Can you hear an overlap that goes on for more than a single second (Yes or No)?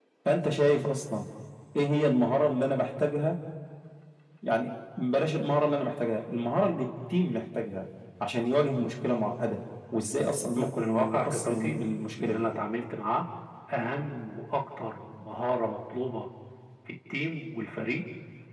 Yes